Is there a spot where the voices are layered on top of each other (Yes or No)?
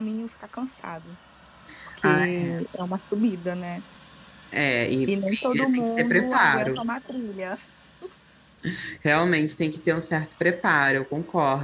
Yes